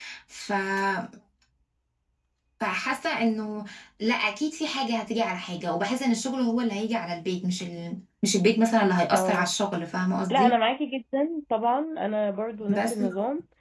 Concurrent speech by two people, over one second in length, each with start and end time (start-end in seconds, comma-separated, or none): none